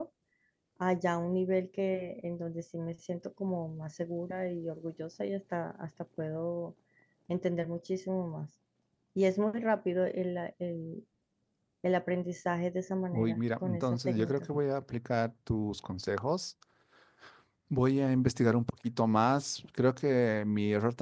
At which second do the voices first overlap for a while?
13.1 s

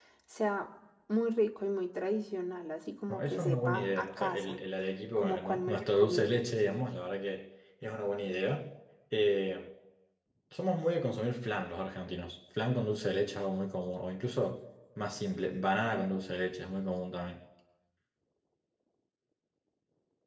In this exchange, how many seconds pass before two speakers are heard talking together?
3.1 s

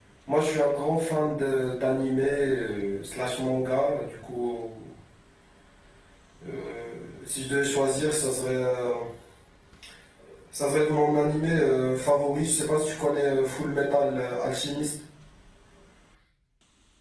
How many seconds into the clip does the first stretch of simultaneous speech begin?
none

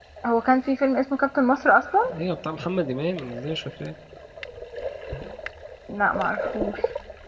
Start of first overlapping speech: none

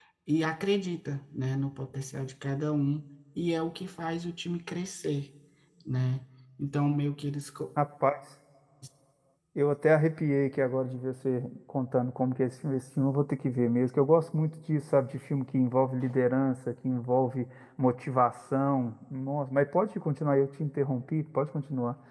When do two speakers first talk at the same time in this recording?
none

